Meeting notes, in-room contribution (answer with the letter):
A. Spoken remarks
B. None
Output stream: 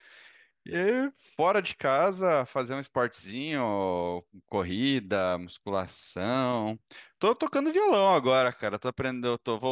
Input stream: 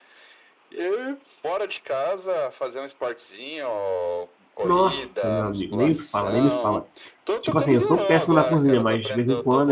A